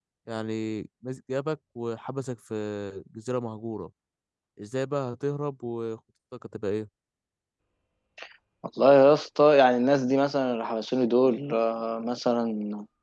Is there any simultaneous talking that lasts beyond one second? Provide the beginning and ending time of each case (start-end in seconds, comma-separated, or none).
none